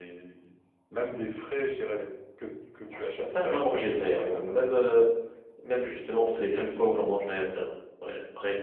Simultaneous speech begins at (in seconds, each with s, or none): 3.1 s